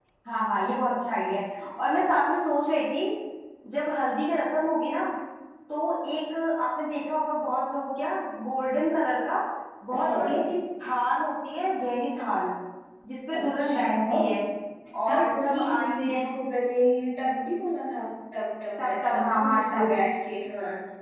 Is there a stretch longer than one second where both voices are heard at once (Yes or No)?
Yes